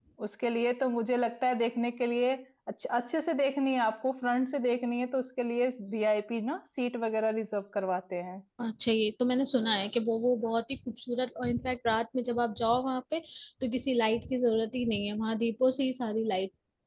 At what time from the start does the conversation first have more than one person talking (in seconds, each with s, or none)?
none